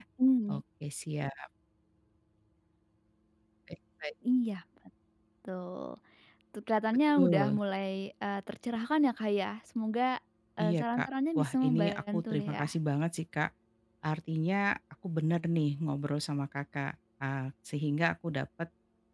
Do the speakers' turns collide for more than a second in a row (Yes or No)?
Yes